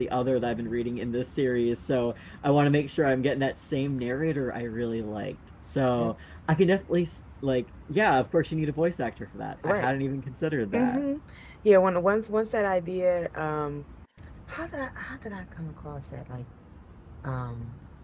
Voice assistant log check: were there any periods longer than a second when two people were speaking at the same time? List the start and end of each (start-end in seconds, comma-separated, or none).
none